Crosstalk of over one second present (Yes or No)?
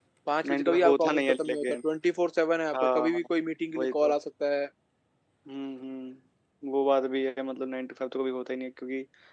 Yes